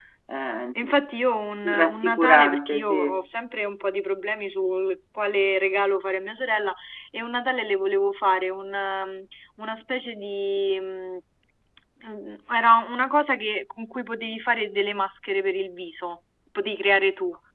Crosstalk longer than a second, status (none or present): present